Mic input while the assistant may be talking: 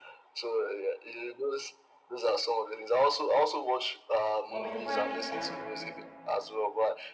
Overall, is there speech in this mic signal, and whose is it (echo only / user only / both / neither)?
both